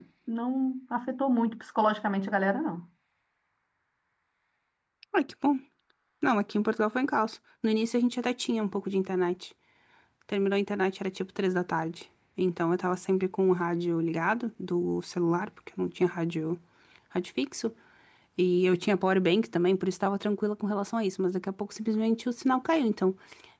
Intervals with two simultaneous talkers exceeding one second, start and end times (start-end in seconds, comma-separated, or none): none